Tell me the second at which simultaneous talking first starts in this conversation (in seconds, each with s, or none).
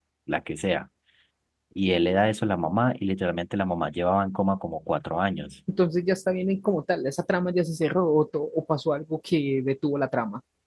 none